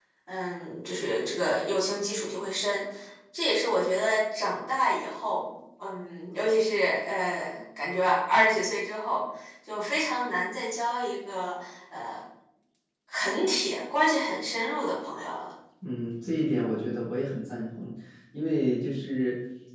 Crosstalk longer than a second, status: none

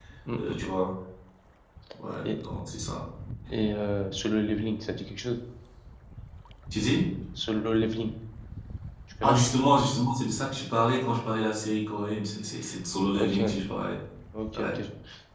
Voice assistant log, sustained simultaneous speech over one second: none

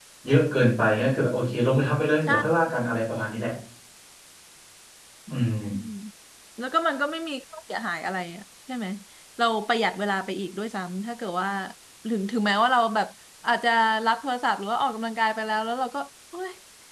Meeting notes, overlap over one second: none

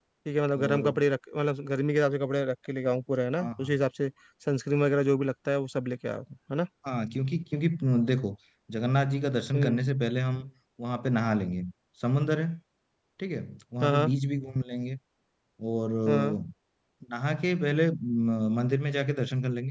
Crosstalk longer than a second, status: none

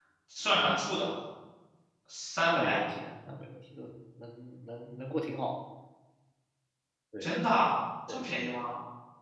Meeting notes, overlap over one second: none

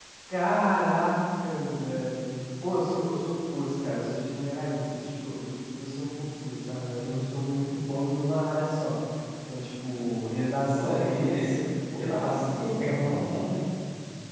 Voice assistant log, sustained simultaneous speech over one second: present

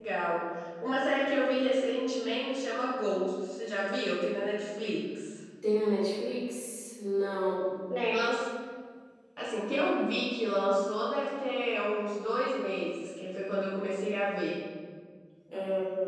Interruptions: none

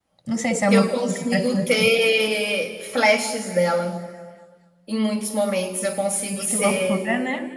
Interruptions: present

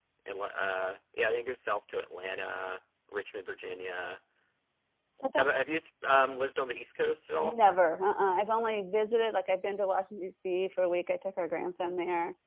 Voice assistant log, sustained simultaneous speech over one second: none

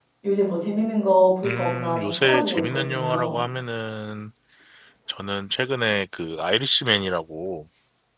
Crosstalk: present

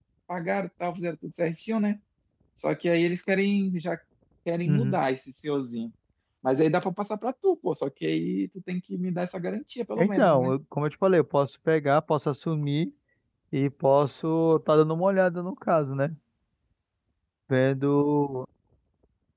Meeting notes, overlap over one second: none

